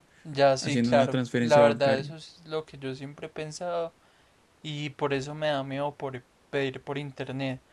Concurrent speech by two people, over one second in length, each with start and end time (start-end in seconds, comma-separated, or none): 0.6-2.1